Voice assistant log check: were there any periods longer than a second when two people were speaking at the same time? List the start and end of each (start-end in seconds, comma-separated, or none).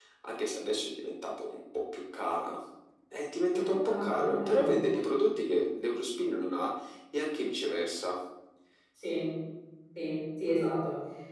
3.5-4.8